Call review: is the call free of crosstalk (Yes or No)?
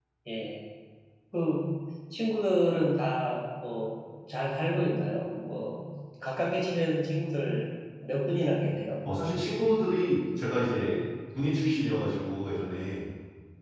Yes